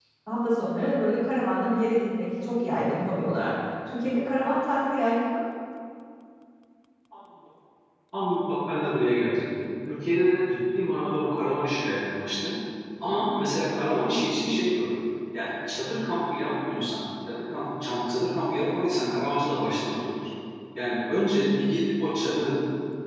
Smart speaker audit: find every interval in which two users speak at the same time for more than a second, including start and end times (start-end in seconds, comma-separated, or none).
none